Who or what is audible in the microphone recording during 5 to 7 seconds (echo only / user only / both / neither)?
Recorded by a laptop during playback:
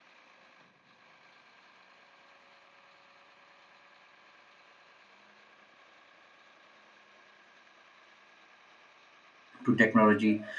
neither